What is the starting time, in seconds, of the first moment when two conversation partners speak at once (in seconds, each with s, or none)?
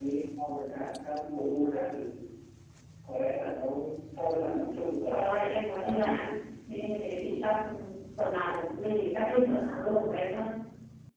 5.0 s